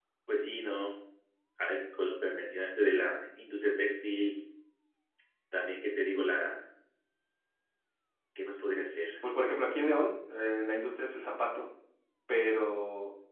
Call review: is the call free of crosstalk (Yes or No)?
Yes